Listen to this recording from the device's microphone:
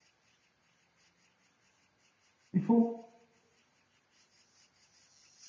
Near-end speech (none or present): present